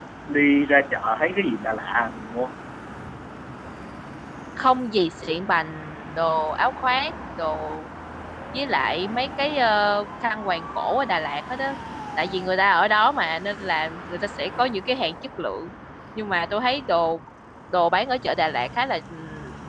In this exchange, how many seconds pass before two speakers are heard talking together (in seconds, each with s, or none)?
none